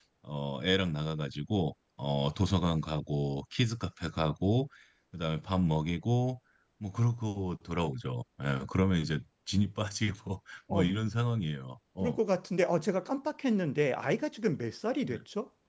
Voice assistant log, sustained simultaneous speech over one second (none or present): none